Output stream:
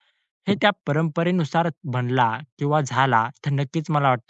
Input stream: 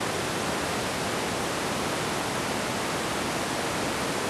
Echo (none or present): none